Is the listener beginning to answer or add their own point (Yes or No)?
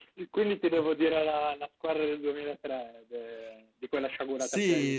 Yes